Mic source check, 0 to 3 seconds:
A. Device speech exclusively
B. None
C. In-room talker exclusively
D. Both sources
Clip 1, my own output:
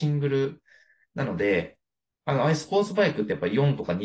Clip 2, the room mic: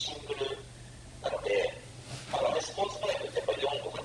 A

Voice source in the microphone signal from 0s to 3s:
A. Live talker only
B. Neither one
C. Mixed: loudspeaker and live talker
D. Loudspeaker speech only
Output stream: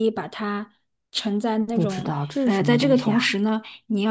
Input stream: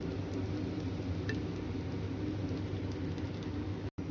B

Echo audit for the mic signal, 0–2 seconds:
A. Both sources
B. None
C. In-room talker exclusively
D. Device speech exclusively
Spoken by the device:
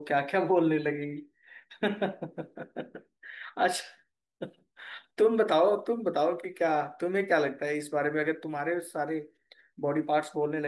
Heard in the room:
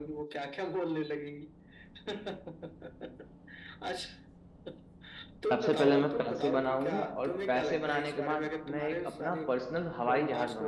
D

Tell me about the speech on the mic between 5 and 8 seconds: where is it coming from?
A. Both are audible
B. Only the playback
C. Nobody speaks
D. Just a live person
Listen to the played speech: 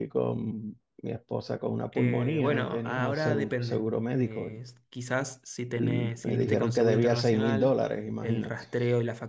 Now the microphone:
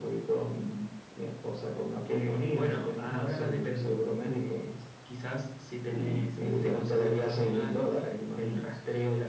B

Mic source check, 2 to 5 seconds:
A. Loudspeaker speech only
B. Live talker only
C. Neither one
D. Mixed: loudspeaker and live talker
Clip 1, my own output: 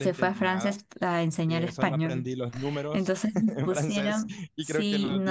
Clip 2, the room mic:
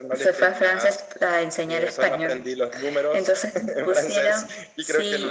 A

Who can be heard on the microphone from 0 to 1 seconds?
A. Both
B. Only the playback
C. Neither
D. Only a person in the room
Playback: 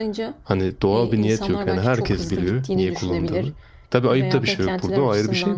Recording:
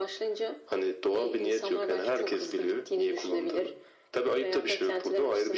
B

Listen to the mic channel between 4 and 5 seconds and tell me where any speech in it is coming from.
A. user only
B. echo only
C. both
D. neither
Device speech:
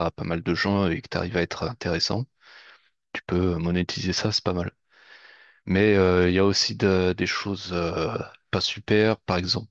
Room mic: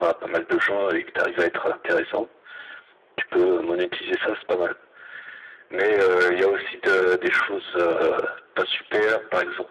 B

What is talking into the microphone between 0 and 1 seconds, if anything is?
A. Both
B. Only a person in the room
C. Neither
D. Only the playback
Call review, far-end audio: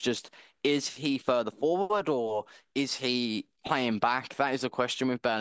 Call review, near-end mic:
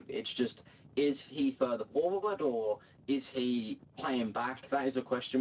D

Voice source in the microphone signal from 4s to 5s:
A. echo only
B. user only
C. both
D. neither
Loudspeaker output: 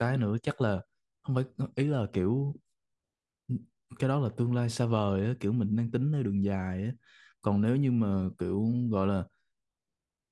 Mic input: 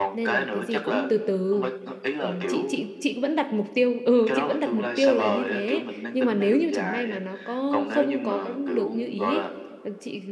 C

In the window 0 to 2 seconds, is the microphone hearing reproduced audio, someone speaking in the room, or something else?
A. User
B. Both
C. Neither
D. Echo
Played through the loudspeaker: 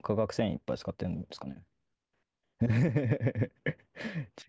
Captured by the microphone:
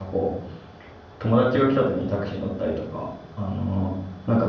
A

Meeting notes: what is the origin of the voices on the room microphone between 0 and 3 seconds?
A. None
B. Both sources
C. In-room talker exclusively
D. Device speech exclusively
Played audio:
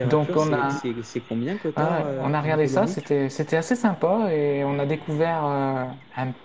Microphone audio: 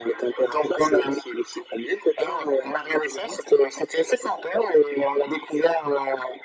D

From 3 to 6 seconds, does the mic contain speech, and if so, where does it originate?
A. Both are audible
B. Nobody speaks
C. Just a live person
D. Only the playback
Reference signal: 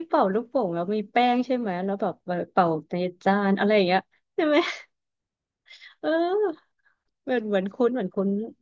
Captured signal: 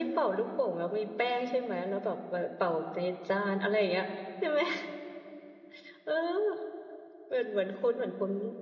D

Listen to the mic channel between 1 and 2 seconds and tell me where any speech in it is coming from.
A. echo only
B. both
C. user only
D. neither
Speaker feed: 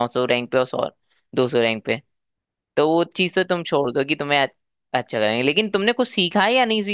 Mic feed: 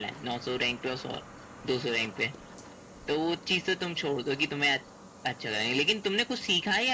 A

